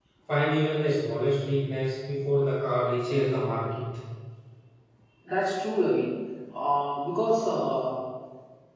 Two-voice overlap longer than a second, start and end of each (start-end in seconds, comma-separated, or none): none